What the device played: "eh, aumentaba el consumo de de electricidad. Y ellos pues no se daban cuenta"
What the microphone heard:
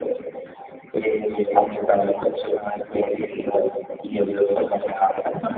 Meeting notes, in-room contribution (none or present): none